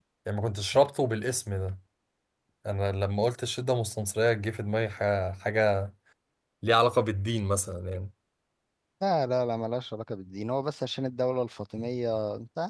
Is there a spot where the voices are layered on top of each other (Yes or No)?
No